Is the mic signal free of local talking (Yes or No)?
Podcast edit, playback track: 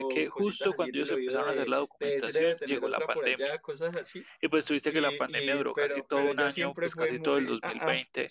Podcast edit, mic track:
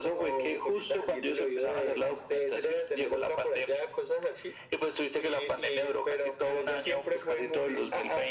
Yes